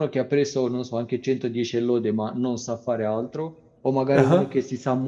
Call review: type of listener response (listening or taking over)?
listening